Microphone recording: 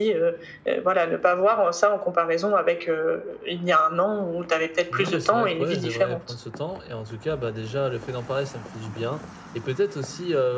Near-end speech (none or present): present